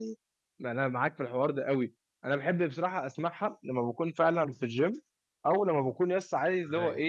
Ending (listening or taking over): listening